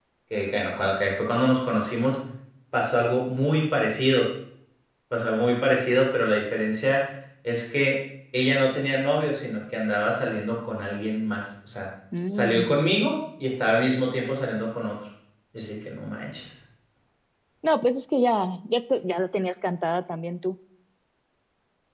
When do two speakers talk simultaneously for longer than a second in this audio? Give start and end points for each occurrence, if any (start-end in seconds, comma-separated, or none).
none